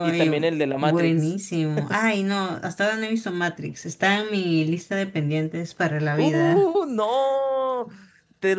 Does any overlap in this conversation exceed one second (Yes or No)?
No